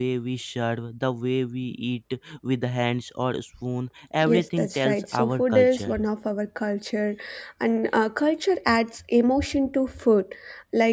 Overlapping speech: Yes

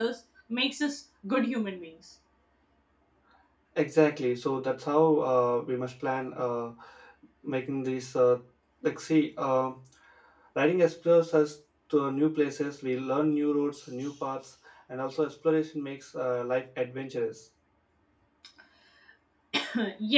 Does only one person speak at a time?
Yes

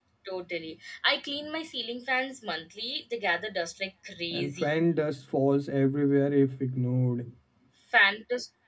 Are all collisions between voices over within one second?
Yes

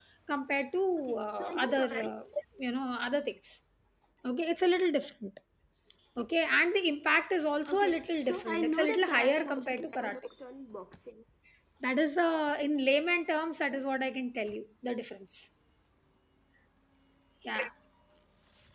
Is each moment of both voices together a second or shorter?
No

